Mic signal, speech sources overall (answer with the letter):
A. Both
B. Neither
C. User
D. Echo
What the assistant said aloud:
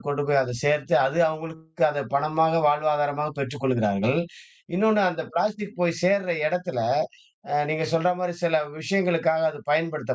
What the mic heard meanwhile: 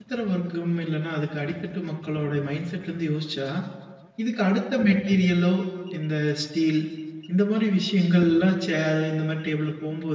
C